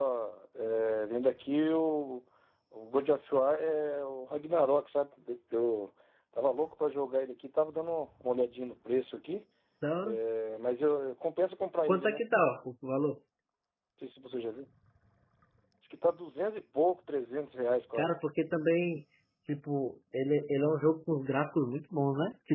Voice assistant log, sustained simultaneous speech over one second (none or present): none